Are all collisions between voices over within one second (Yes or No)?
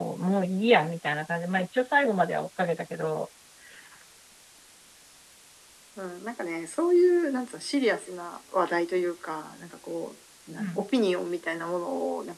Yes